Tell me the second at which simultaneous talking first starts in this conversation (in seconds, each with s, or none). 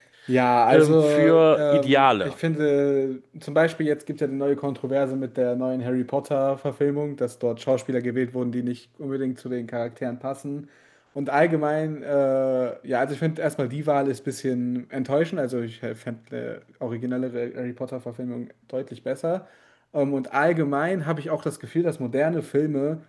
0.7 s